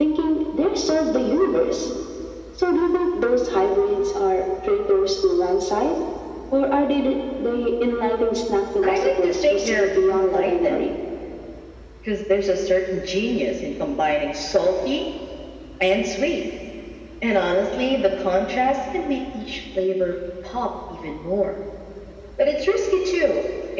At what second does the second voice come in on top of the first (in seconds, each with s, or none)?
8.8 s